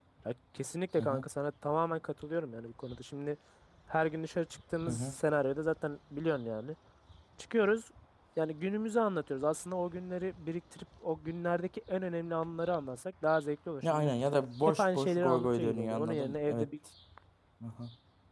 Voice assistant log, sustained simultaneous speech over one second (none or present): present